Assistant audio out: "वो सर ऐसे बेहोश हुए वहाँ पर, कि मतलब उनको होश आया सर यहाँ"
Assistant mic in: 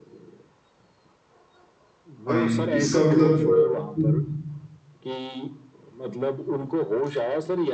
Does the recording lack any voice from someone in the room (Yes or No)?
No